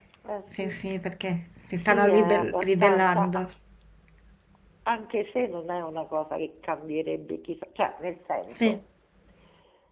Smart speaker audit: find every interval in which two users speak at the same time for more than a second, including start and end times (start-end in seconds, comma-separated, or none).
1.8-3.4